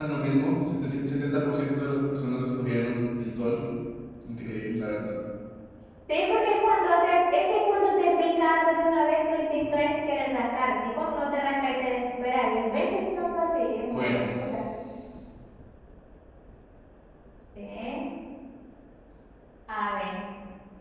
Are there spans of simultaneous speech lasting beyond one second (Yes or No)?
No